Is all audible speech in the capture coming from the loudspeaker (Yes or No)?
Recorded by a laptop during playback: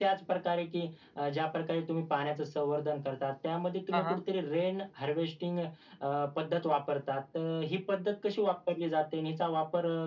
No